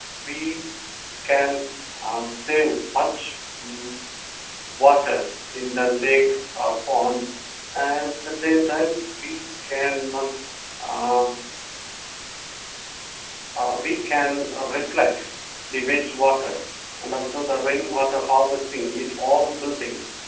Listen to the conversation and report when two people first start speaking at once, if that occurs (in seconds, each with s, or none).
none